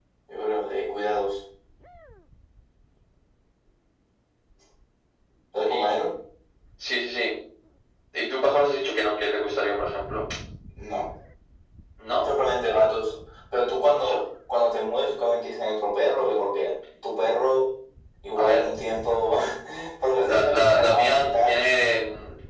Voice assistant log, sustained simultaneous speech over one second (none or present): present